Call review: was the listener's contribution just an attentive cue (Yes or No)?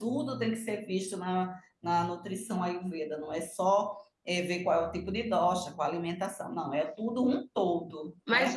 No